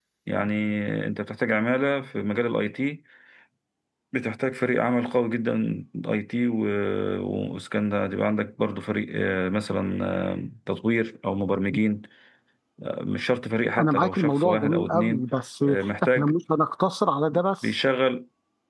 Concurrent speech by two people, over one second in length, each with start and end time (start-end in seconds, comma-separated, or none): 13.8-15.2